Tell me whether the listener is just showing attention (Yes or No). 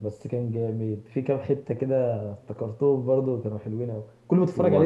No